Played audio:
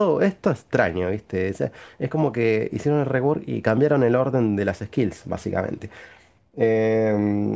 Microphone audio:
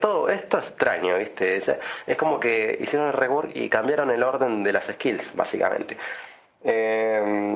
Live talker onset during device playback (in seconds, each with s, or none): none